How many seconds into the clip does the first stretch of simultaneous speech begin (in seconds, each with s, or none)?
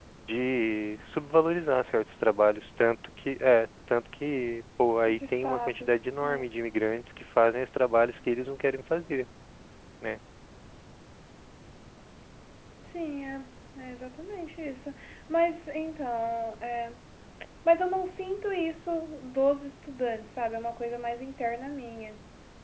5.1 s